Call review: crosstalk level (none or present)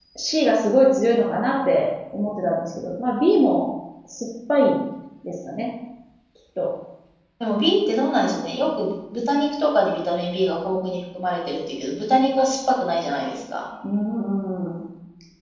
none